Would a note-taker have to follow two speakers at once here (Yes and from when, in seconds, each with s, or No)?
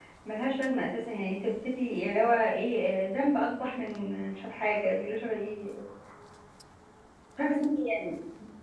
No